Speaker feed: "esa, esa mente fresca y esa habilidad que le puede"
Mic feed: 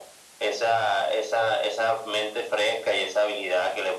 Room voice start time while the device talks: none

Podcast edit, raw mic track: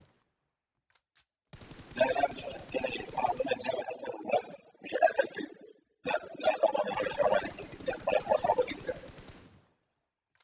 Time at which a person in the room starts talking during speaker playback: none

